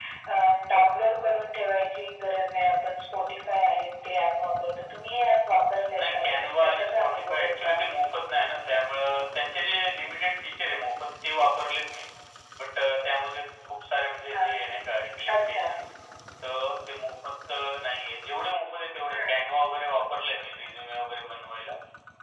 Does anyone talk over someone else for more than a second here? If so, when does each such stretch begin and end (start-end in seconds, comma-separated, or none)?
6.0-7.8